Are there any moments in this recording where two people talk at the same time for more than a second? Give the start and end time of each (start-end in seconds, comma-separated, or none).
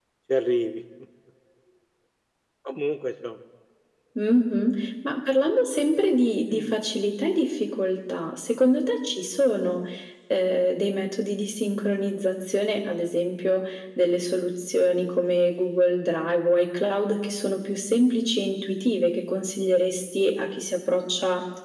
none